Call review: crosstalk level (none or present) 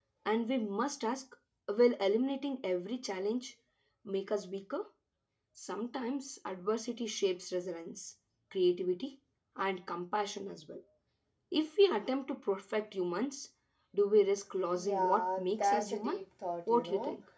present